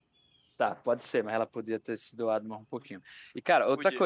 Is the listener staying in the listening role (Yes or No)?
Yes